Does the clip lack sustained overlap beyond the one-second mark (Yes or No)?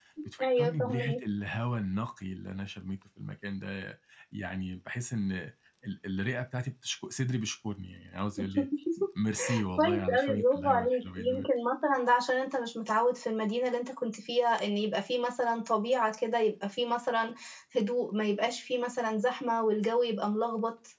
No